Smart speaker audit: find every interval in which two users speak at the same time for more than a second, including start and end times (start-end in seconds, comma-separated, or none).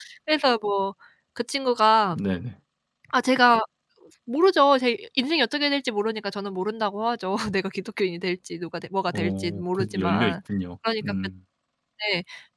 9.1-10.3